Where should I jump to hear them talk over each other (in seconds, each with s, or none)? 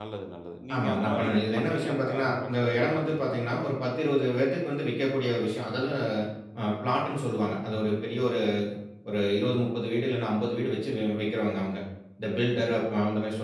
0.7 s